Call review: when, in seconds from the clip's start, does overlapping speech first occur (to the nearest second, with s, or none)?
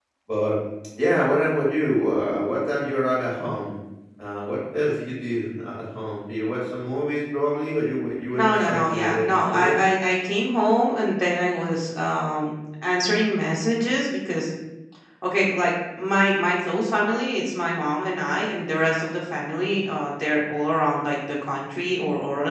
8 s